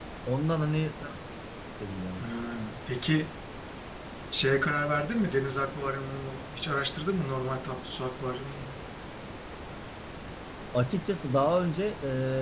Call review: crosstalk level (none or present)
none